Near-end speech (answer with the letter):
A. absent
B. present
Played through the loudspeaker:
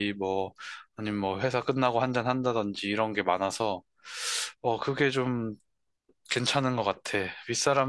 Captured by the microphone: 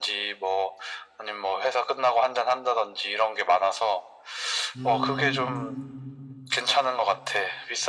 B